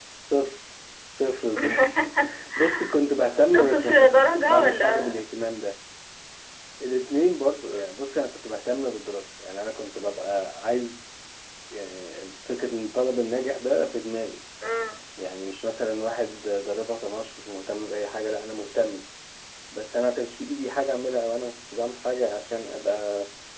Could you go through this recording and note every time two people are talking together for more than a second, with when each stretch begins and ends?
3.5-5.2

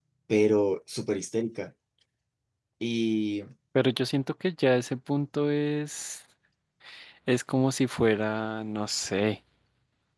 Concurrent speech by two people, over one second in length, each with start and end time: none

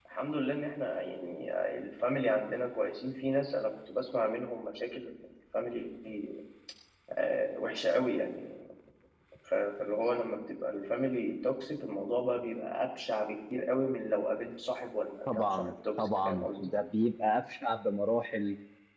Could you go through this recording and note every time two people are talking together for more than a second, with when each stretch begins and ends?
15.3-16.7

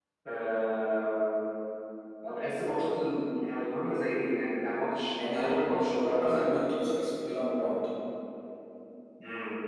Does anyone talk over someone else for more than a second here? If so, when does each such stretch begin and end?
5.1-6.6

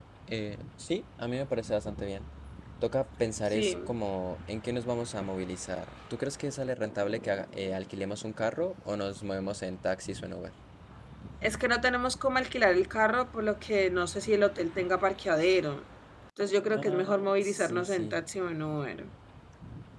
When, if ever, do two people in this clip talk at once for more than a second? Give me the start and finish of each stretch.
16.8-18.2

